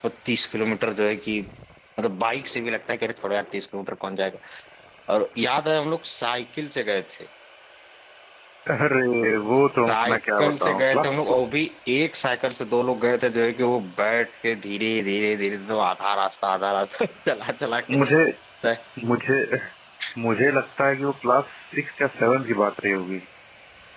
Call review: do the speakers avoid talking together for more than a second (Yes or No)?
No